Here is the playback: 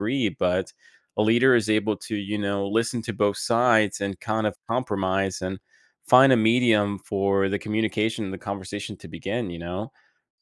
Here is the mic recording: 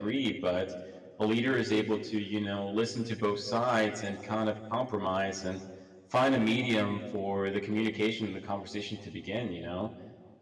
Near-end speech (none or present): none